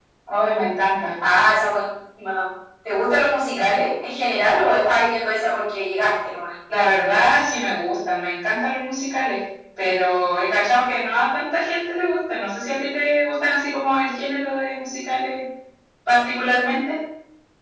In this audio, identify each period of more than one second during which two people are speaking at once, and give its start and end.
none

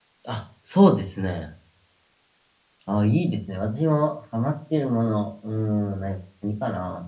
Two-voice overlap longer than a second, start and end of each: none

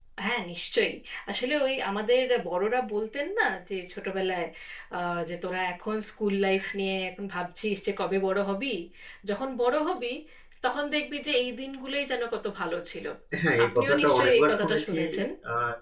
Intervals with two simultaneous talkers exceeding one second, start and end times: 13.6-15.0

